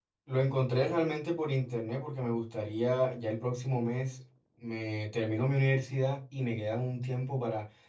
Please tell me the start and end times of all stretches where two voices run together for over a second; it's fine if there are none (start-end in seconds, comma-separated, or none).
none